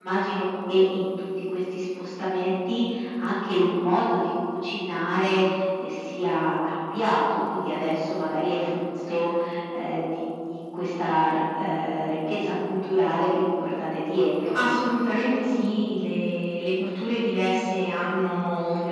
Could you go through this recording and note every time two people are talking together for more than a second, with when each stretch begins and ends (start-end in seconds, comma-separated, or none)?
none